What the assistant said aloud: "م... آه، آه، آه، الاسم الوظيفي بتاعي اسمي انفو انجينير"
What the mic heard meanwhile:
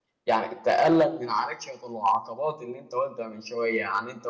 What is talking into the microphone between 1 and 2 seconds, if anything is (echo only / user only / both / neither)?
user only